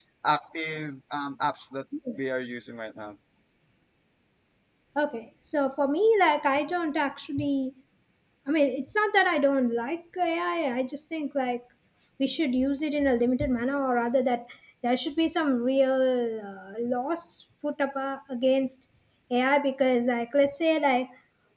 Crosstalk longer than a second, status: none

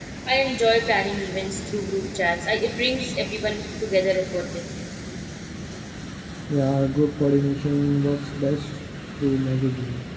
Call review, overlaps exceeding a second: none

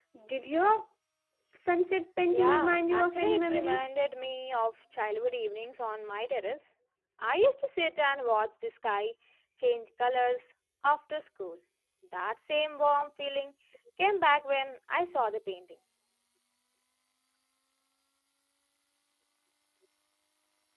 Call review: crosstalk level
present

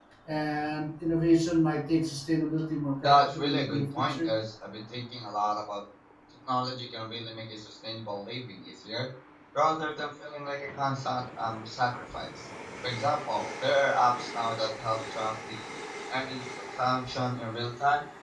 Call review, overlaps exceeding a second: present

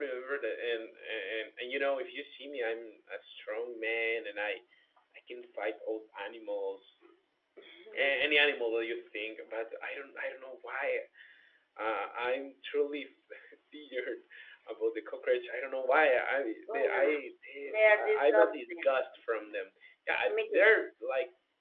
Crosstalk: present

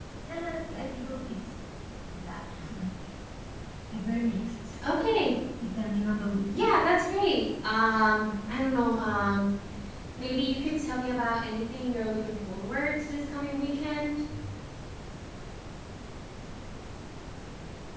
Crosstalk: none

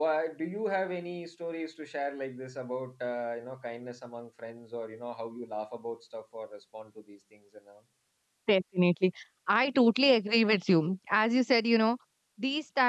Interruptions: none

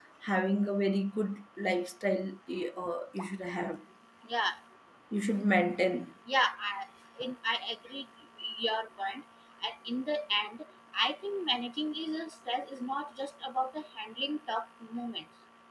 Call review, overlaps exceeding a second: none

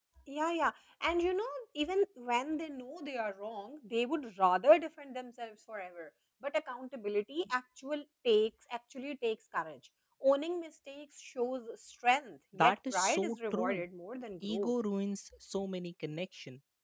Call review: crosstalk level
present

